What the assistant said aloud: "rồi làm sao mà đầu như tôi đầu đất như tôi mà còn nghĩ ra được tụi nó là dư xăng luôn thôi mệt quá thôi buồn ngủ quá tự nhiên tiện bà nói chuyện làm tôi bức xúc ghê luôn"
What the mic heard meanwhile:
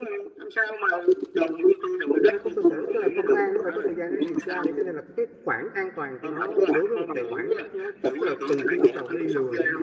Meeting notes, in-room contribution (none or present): present